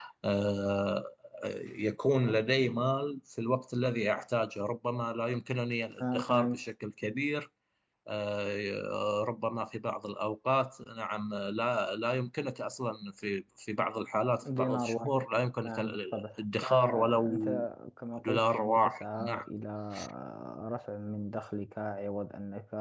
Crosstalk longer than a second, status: present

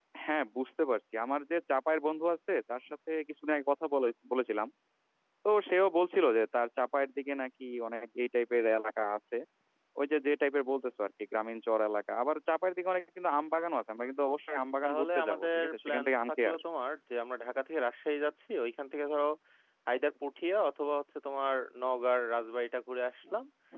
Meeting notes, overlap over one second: present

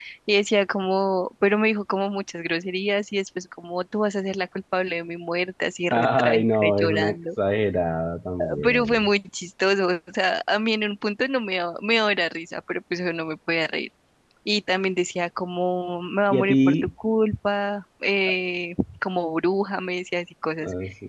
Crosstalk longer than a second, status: present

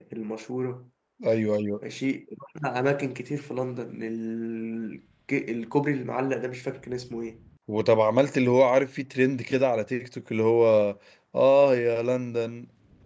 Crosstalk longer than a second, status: none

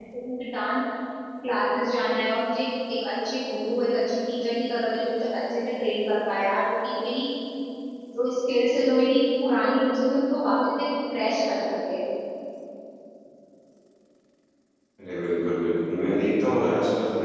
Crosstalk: none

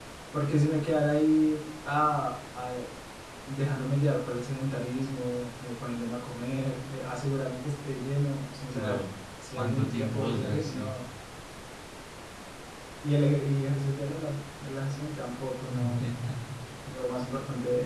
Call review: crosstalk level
present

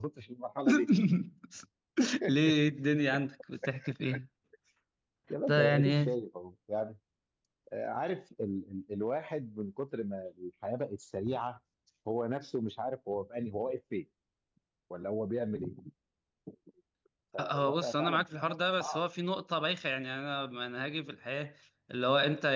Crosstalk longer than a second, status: present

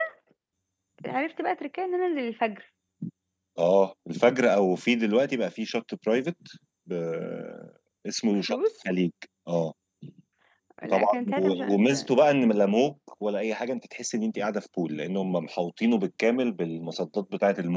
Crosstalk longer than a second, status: present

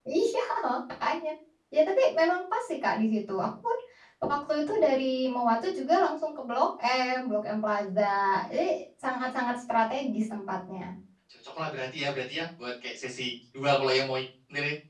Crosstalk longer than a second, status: none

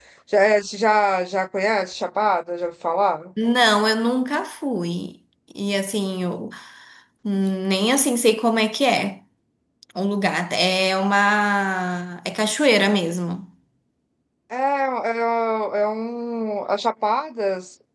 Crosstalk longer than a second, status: none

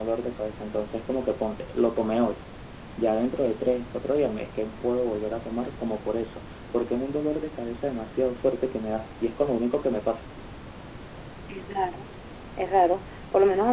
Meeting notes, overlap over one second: none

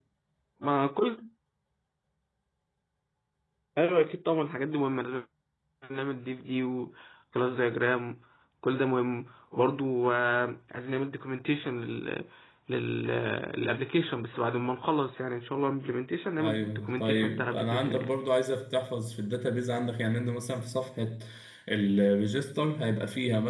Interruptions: present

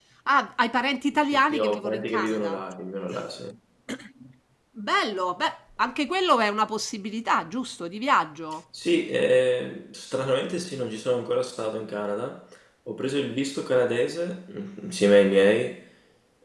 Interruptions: present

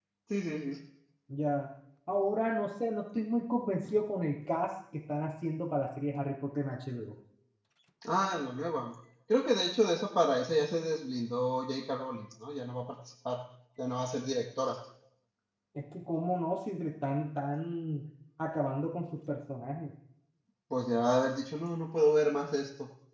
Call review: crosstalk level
none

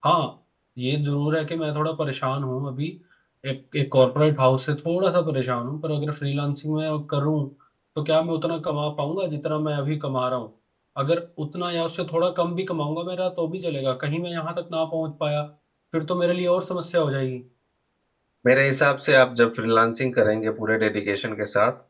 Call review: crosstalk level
none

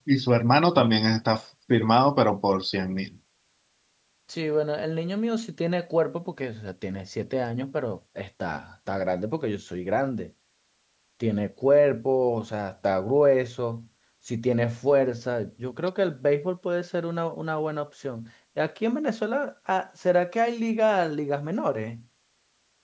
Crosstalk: none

